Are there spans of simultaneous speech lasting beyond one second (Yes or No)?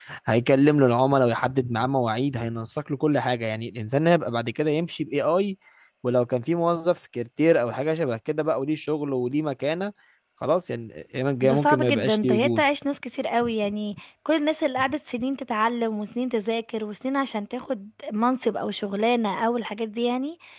Yes